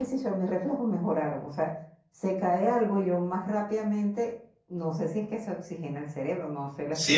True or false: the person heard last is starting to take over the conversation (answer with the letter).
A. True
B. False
A